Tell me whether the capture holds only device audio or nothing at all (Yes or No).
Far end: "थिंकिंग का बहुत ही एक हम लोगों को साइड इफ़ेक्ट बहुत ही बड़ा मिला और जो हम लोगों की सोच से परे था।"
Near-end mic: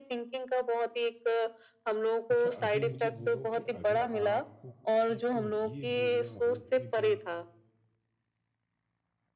No